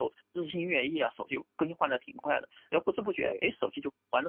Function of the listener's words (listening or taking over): listening